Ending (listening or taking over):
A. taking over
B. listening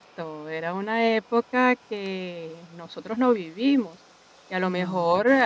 B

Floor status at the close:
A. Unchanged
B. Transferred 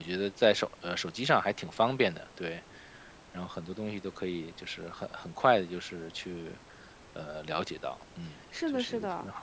B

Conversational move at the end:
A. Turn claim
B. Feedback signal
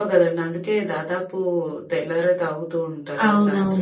A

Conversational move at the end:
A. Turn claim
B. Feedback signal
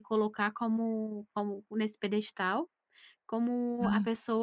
B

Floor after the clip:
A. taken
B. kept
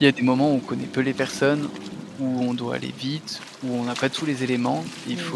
B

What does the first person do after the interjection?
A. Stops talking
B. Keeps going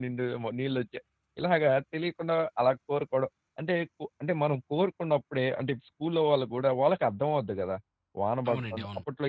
B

